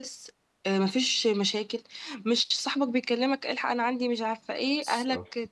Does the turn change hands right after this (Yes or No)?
No